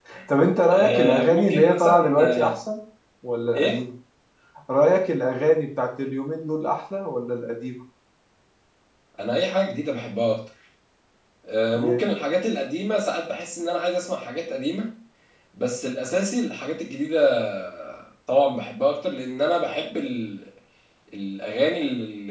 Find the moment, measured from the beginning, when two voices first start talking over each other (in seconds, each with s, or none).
0.7 s